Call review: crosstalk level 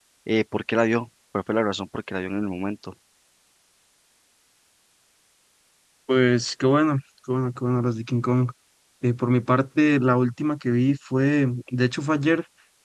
none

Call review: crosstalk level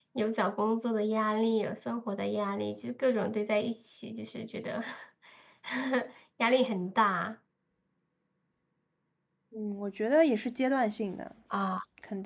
none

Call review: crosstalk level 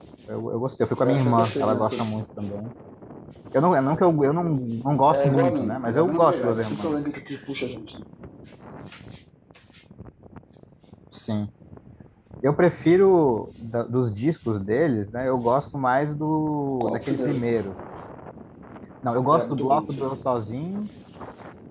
present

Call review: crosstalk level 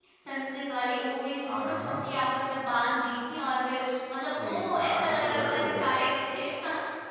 present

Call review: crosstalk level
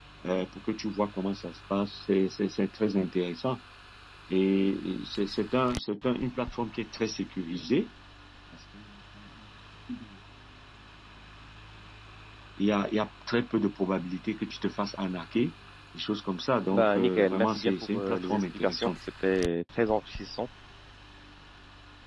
present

